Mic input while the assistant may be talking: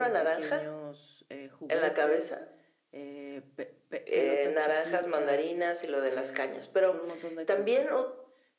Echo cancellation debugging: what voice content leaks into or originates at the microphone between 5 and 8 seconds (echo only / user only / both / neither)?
both